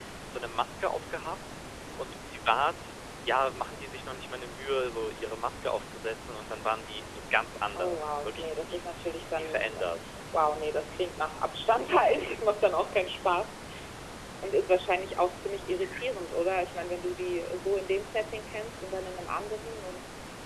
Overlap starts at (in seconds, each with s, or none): 7.7 s